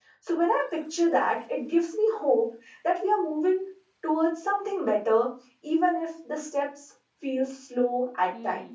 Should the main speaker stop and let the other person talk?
Yes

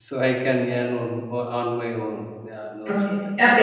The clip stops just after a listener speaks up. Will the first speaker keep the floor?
No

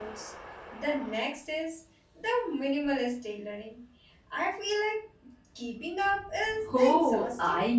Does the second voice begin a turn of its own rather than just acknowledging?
Yes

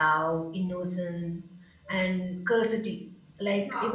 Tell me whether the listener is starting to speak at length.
No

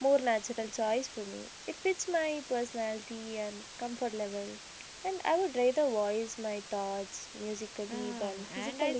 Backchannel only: No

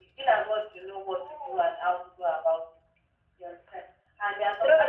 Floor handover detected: No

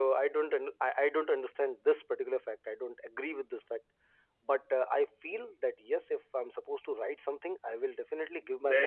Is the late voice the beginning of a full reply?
Yes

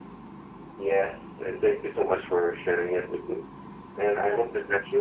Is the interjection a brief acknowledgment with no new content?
Yes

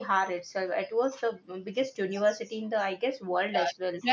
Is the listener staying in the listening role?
No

